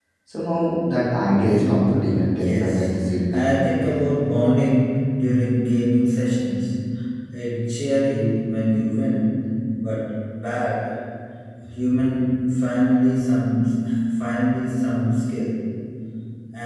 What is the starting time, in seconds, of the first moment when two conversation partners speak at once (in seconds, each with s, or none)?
1.6 s